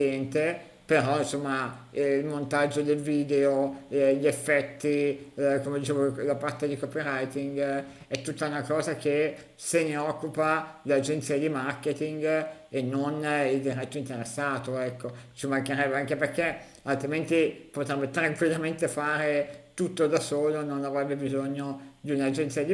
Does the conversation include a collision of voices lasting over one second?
No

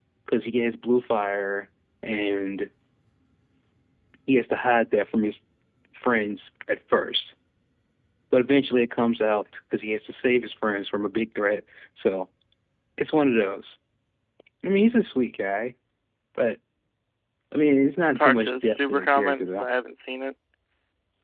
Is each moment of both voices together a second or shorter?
No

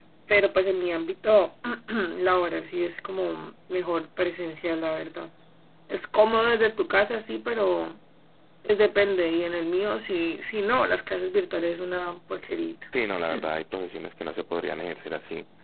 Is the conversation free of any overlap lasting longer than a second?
Yes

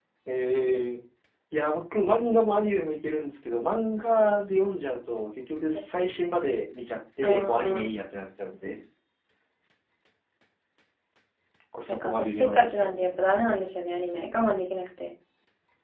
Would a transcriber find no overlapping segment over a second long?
No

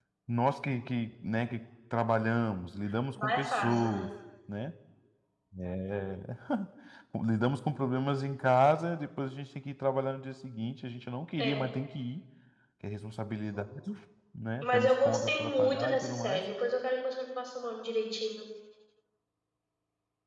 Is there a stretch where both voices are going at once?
Yes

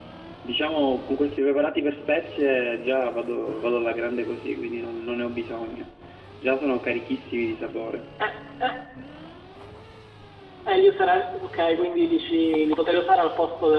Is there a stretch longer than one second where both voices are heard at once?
No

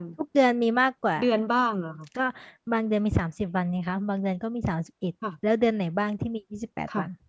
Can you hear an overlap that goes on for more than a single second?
No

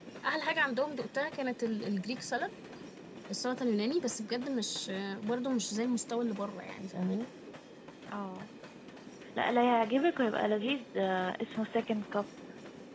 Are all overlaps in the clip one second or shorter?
Yes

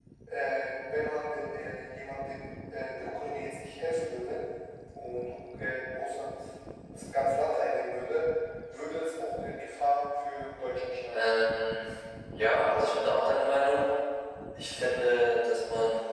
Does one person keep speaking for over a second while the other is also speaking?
No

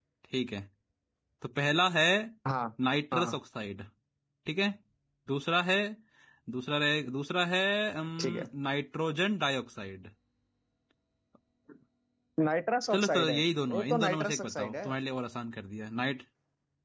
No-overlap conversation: No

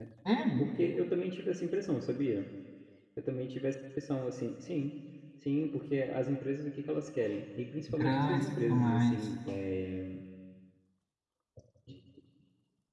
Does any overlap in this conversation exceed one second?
Yes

